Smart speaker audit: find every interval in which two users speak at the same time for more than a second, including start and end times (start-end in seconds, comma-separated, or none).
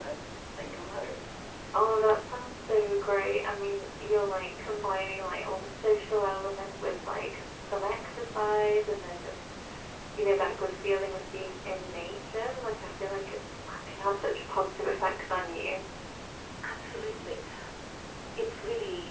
none